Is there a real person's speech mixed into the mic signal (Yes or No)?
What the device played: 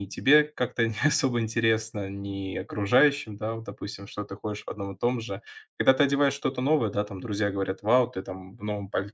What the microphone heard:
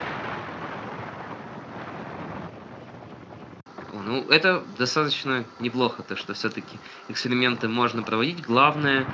Yes